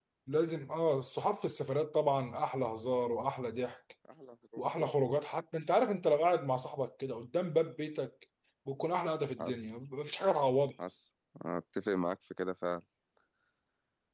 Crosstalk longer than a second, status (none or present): none